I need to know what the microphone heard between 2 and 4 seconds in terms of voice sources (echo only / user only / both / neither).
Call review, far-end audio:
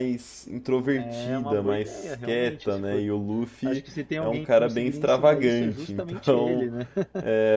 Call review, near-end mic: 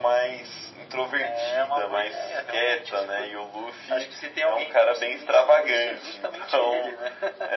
echo only